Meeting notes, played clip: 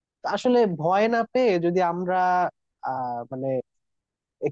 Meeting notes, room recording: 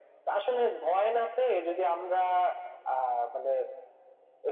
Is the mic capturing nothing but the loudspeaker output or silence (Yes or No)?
Yes